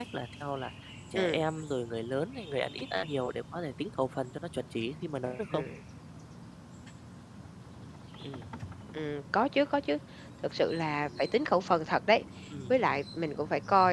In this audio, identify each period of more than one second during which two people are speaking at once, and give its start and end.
none

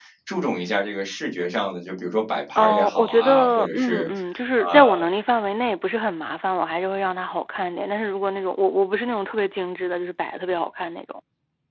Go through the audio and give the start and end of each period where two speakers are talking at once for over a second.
2.5-4.1

